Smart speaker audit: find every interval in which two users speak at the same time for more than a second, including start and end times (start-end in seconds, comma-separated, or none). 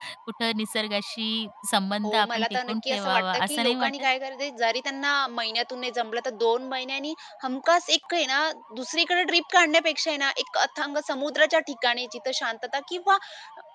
2.0-4.0